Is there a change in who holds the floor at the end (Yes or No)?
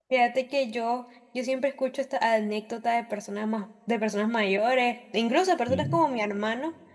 No